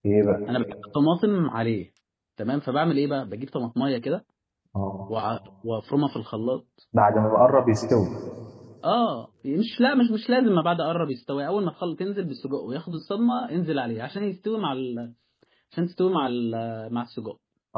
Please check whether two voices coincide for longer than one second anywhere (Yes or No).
No